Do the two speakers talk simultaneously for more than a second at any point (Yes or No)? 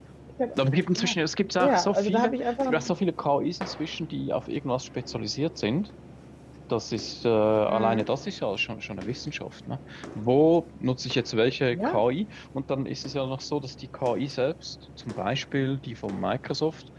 Yes